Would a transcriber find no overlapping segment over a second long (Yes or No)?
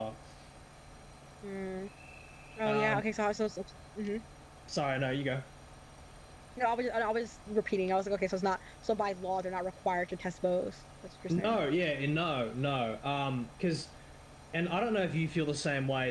Yes